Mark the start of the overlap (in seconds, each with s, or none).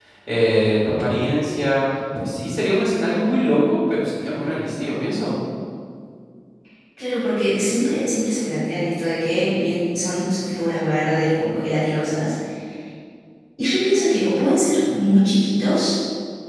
none